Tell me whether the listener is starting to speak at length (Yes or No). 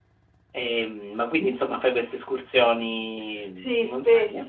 Yes